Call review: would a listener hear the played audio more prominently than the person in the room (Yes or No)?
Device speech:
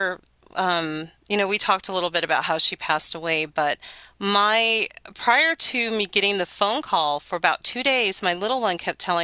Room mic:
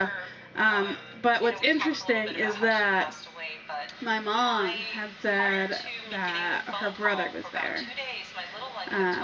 No